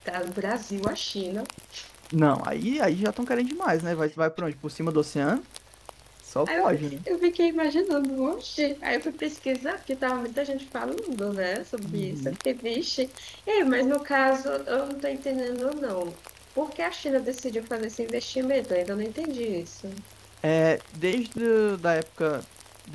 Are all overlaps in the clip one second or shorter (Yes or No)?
Yes